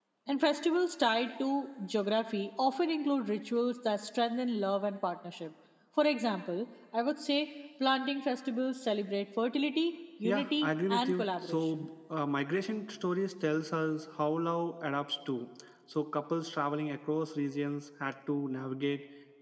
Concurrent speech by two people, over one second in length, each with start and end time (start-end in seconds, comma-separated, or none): 10.2-11.8